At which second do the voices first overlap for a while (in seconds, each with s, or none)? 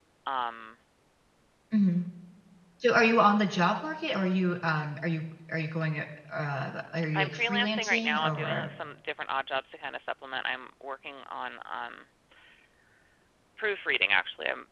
7.1 s